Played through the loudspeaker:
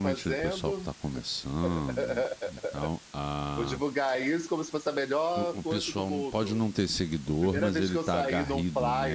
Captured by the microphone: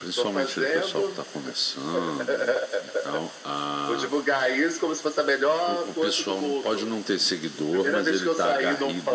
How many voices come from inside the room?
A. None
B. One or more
A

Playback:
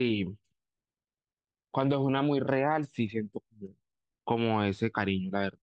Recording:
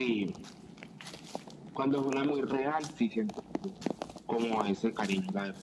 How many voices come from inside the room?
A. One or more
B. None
B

